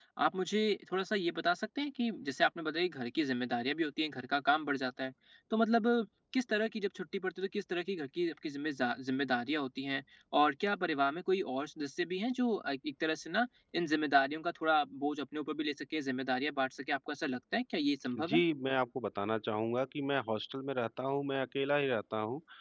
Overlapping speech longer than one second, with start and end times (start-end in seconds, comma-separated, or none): none